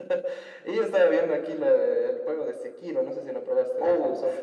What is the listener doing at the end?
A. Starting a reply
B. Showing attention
A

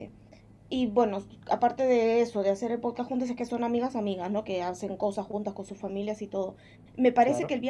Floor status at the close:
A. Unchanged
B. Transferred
A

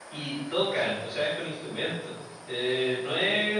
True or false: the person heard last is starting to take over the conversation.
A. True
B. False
B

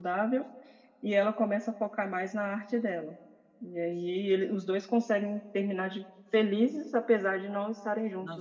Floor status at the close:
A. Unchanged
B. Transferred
B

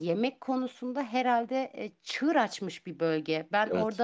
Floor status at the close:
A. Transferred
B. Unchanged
B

